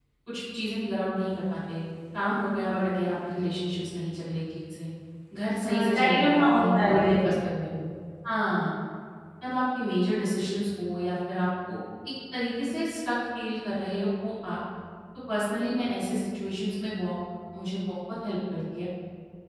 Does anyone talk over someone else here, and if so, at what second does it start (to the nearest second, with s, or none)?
6 s